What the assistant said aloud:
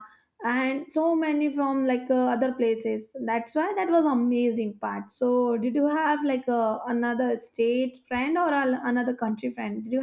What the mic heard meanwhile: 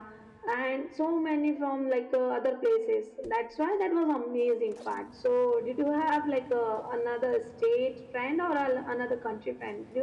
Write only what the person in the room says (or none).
none